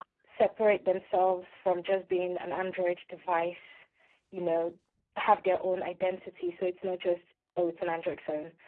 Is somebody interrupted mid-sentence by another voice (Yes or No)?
No